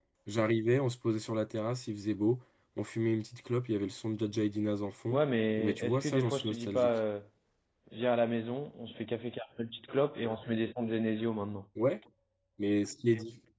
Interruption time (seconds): 5.6 s

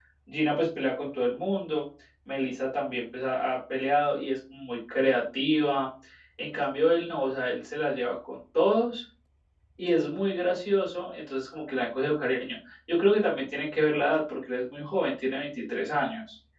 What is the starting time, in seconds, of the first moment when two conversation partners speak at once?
none

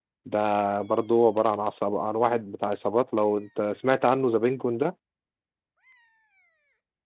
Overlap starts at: none

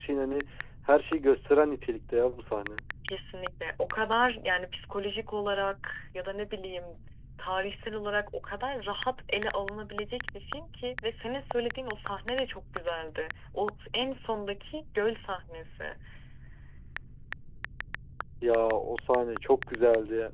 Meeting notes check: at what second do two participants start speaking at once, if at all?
none

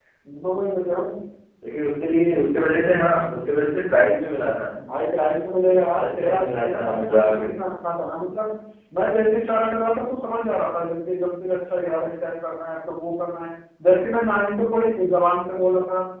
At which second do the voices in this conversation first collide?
6.0 s

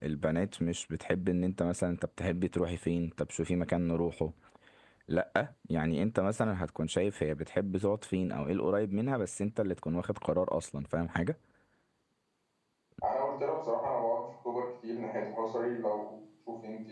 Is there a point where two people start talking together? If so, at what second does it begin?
none

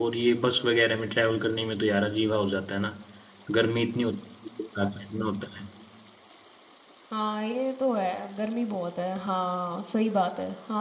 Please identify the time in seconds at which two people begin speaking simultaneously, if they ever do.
none

